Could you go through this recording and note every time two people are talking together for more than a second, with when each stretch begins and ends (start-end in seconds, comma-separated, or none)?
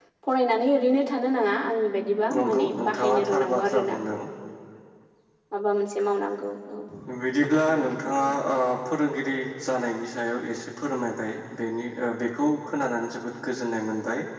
2.4-4.0